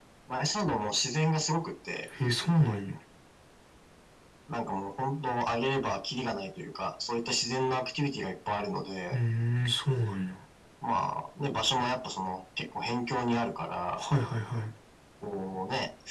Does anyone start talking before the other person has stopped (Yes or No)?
No